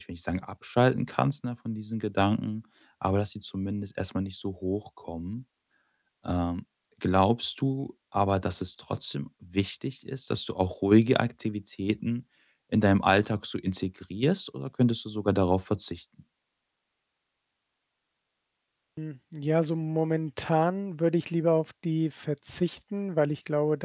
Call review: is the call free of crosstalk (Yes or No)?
Yes